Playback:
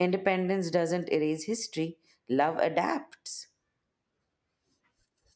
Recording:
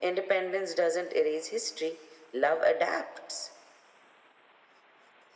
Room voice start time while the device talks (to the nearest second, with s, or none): none